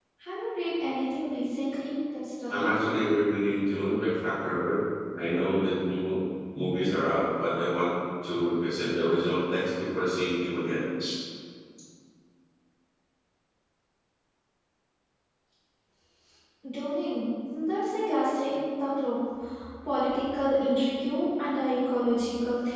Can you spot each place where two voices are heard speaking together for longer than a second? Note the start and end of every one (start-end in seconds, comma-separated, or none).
none